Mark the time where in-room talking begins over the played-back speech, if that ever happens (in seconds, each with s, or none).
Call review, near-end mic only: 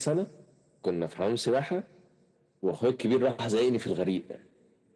none